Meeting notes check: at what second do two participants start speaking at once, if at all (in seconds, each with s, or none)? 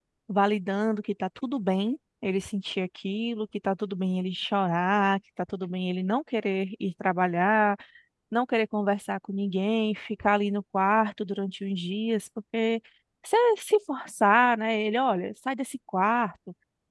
none